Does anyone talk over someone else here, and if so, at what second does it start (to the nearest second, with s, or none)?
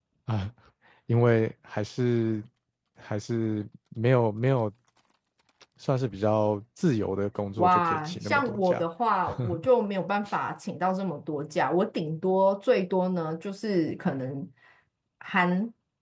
8 s